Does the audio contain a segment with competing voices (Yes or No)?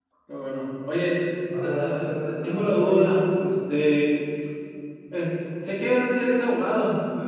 Yes